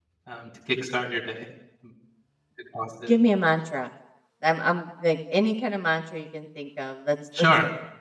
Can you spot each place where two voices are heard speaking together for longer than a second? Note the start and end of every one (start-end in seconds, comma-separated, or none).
none